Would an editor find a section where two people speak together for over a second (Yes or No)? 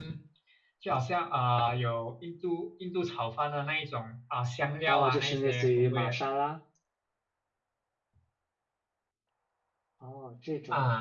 Yes